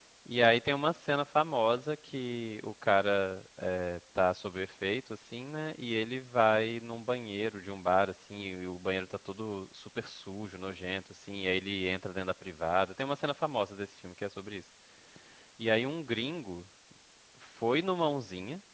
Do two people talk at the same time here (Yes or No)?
No